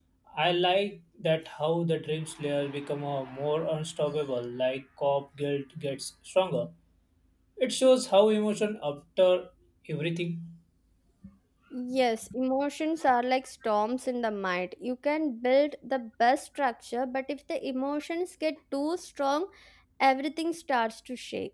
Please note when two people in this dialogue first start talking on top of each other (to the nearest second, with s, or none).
none